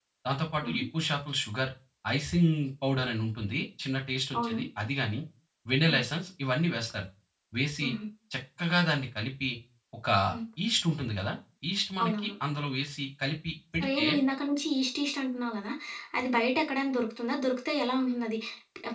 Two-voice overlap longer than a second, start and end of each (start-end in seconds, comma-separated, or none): none